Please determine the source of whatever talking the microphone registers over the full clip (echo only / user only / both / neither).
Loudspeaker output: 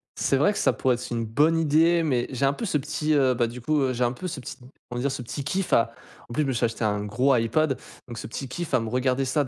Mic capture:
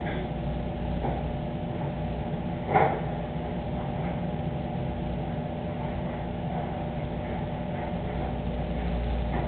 neither